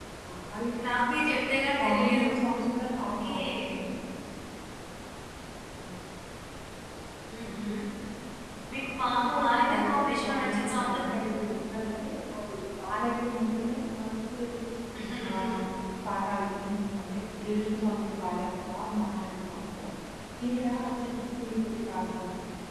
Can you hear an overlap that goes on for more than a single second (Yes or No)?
Yes